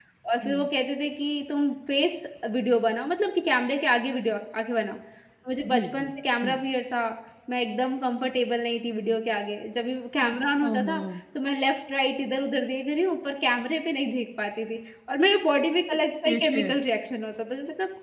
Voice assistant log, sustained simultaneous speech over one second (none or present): none